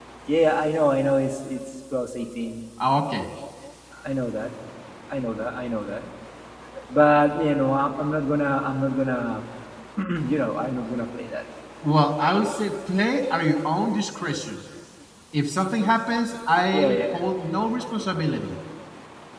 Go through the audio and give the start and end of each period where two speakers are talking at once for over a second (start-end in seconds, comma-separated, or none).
none